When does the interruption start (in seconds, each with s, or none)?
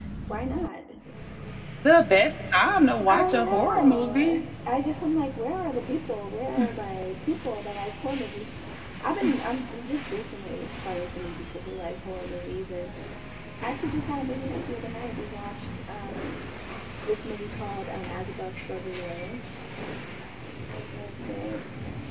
3.1 s